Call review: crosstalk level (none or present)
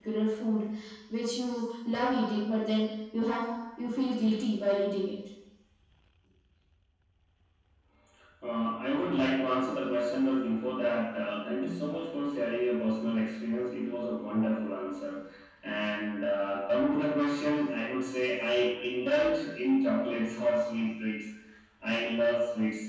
none